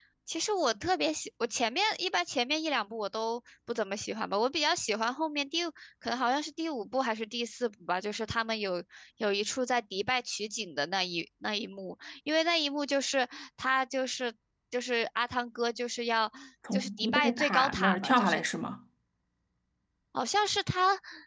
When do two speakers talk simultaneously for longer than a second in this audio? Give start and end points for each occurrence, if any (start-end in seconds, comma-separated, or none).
16.7-18.4